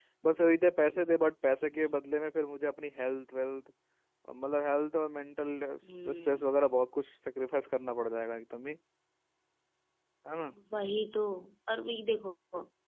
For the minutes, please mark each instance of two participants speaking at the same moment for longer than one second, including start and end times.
none

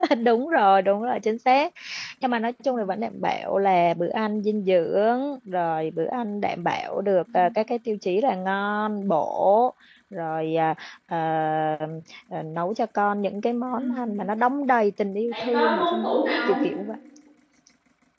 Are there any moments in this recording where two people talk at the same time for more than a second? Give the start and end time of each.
15.3-16.6

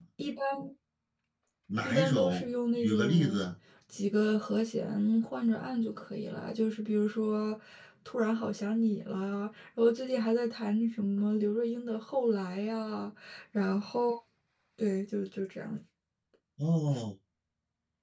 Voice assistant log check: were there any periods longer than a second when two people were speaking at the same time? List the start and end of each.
1.8-3.4

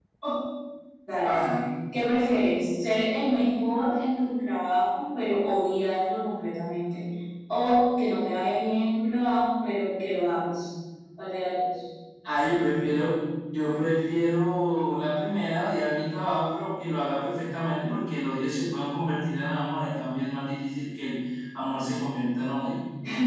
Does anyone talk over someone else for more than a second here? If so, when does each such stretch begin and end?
none

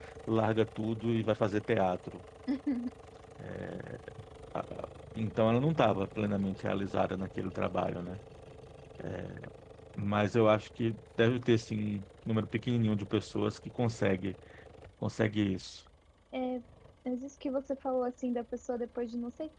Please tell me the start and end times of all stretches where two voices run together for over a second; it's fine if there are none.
none

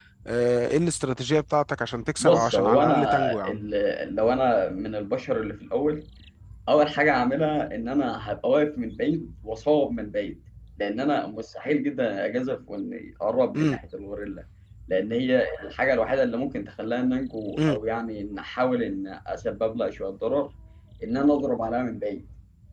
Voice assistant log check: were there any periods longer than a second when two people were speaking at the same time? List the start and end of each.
2.2-3.6

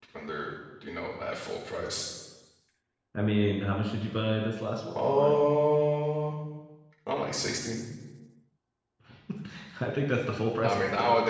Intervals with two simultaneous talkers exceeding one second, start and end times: none

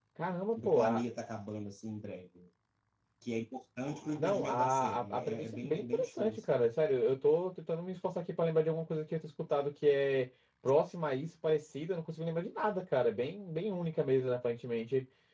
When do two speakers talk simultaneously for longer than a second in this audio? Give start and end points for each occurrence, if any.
4.2-6.6

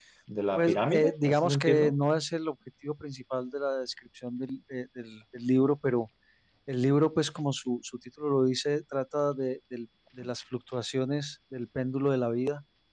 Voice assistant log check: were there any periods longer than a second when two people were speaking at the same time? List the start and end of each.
0.6-1.9

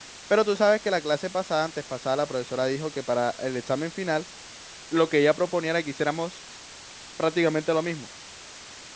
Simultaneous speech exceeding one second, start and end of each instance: none

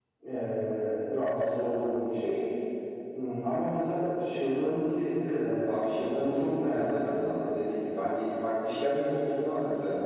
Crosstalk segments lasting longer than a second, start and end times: 5.7-7.4

